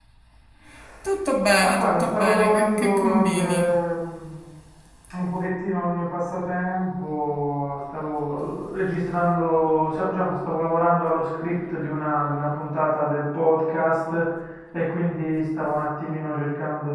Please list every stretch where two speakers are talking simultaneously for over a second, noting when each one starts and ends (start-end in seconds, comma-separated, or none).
1.6-3.7